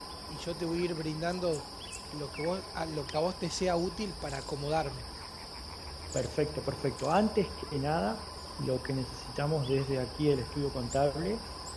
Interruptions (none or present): none